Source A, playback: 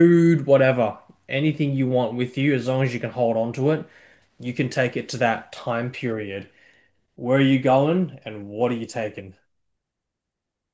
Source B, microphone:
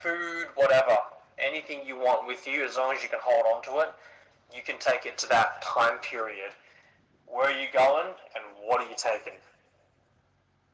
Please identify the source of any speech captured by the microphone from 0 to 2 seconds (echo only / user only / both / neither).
echo only